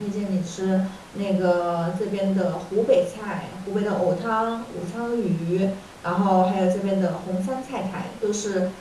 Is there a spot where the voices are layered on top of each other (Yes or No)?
No